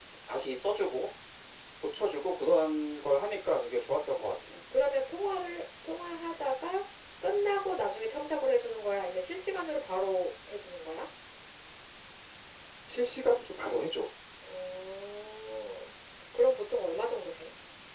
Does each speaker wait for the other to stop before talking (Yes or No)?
Yes